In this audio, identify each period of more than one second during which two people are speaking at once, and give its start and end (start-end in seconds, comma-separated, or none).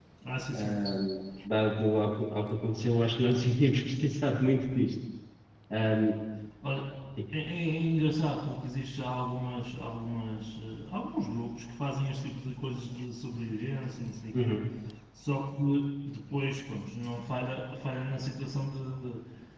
none